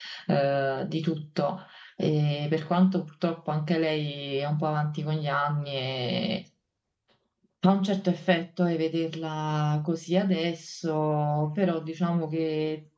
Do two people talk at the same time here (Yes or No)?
No